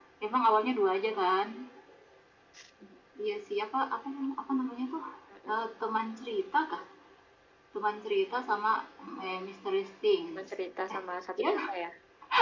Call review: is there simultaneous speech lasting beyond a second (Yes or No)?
No